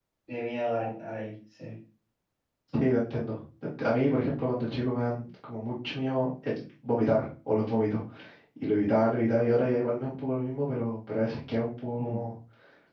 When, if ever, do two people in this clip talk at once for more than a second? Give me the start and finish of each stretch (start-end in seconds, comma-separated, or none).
none